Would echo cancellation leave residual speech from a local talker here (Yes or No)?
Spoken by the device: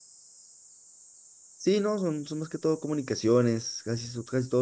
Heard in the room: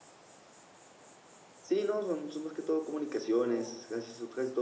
Yes